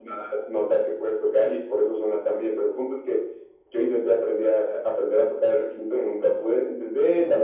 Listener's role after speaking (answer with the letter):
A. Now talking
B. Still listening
B